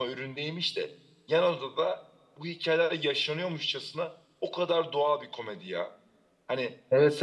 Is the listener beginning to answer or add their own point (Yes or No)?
Yes